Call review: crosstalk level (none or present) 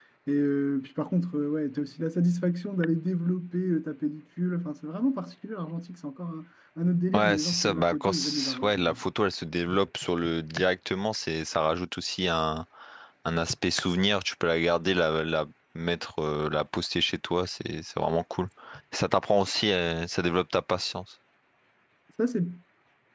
present